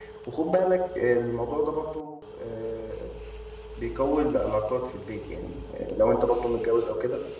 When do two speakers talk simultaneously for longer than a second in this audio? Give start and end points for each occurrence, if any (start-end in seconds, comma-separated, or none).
none